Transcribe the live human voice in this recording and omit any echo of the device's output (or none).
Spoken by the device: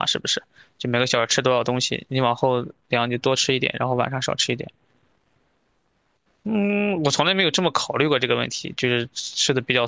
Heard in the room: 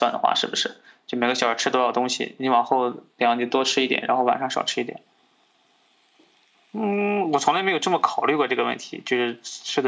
none